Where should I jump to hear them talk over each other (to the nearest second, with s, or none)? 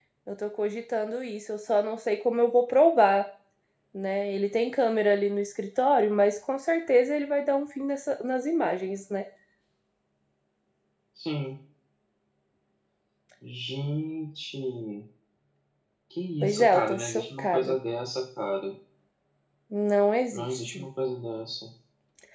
16 s